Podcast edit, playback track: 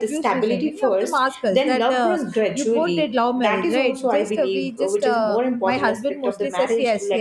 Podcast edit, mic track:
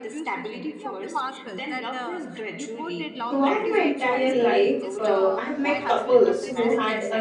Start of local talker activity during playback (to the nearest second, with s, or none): 3 s